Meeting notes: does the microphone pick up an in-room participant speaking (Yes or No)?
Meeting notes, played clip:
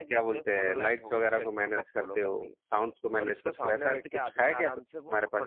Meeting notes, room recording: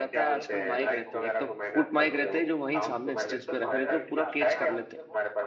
Yes